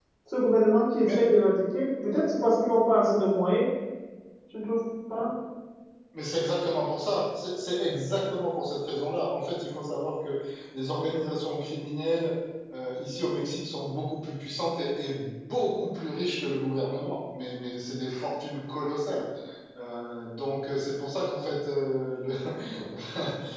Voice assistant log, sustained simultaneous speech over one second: none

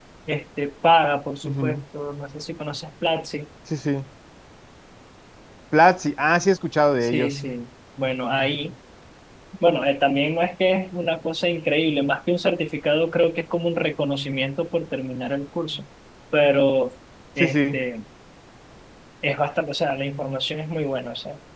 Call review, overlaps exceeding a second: none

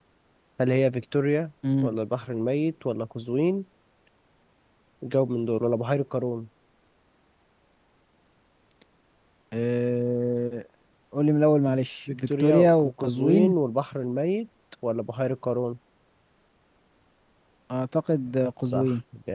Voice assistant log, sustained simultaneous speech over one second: present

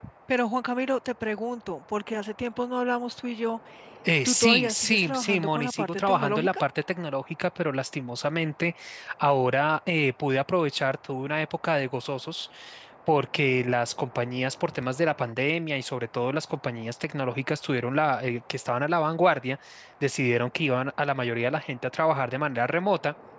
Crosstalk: present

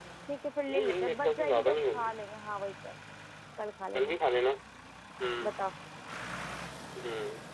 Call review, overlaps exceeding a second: present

